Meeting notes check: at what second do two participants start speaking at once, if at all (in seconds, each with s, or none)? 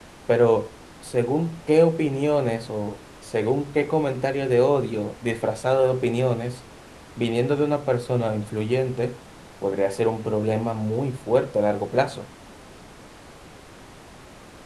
none